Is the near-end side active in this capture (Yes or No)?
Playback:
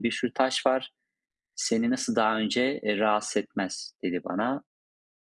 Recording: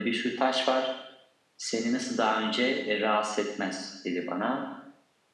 No